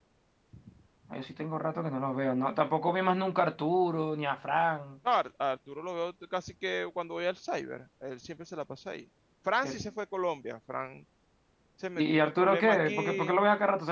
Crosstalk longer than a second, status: present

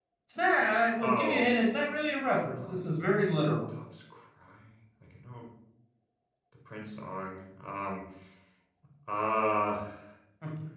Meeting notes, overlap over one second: none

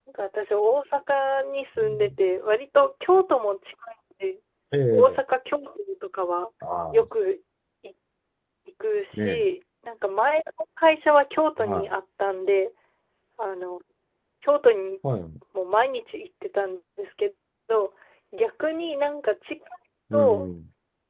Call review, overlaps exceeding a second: none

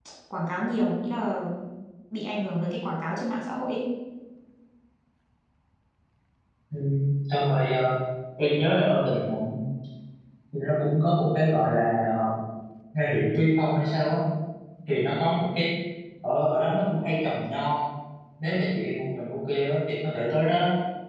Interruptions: none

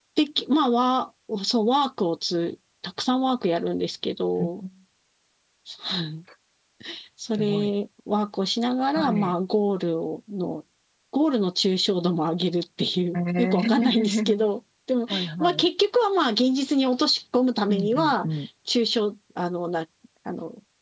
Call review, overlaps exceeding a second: present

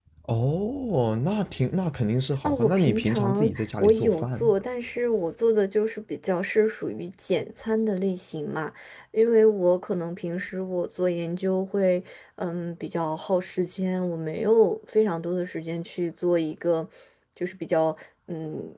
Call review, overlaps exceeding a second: present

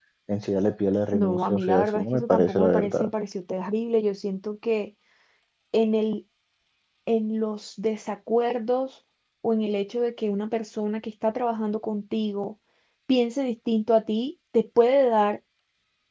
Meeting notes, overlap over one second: present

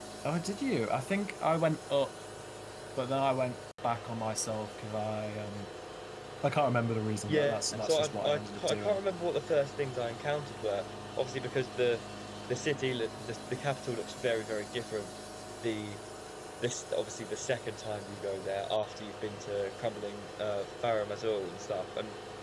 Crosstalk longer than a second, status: present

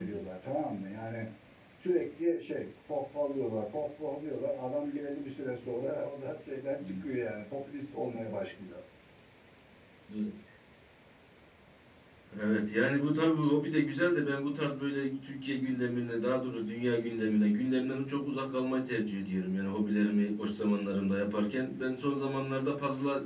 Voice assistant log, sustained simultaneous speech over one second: none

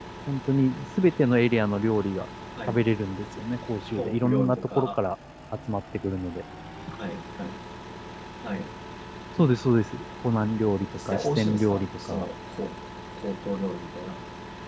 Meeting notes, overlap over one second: present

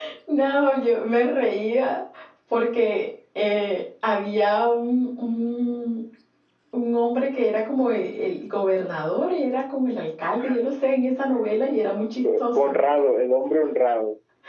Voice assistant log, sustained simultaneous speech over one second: none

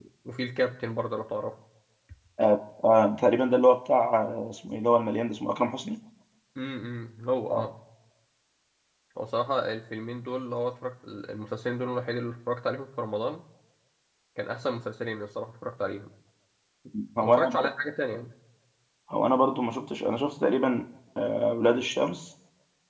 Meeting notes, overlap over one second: none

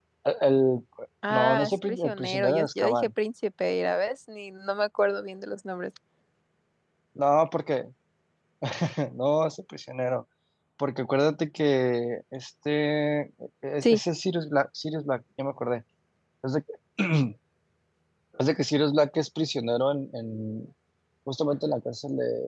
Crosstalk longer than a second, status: present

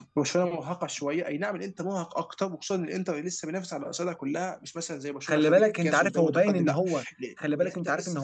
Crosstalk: present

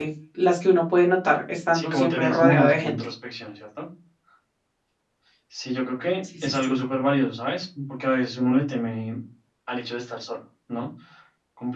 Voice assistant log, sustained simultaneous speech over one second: present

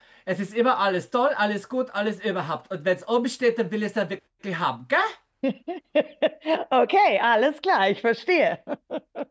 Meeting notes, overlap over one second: none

